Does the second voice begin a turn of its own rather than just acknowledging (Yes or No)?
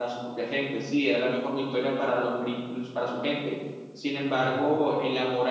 No